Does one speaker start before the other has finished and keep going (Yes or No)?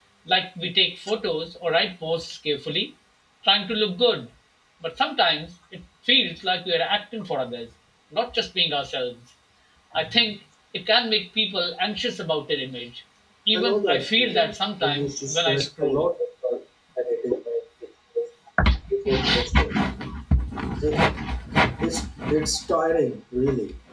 Yes